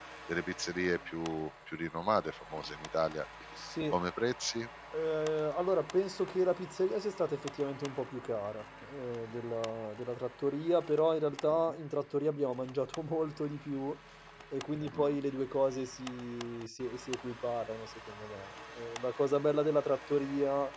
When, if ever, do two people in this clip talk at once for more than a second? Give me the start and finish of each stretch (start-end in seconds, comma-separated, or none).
none